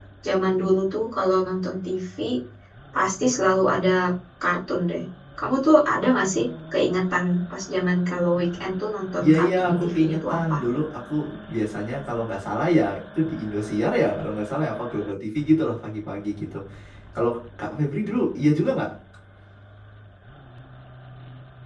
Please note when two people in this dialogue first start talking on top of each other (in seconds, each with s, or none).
9.2 s